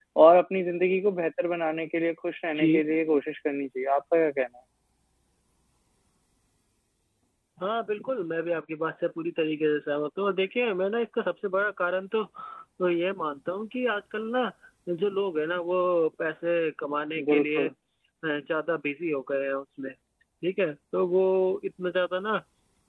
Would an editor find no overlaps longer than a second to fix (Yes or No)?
Yes